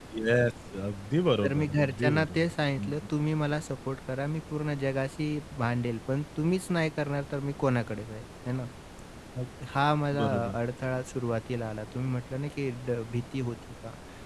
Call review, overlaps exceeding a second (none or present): present